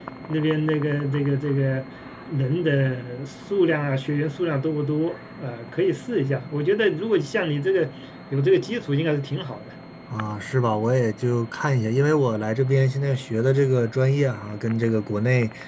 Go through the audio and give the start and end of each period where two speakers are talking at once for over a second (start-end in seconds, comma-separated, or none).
none